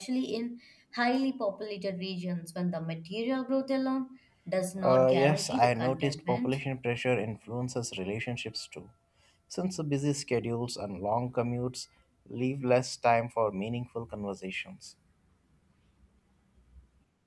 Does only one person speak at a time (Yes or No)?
No